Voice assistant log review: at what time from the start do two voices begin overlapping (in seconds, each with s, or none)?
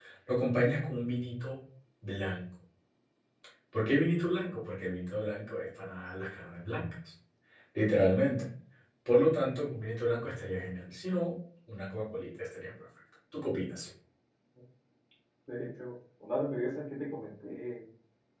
none